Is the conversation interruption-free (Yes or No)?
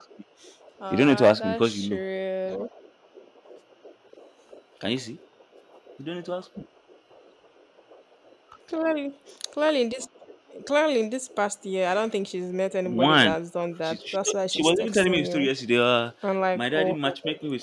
No